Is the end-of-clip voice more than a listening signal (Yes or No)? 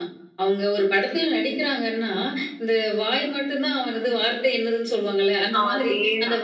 No